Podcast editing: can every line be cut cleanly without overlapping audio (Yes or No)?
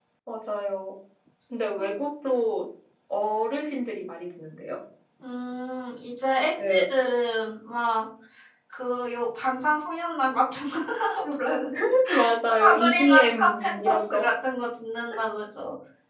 No